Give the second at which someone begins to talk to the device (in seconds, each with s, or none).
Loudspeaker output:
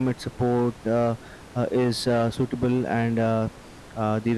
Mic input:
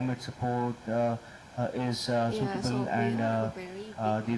2.2 s